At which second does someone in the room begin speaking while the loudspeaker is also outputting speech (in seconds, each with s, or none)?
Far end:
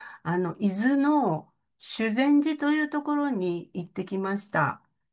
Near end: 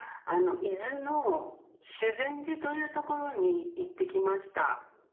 none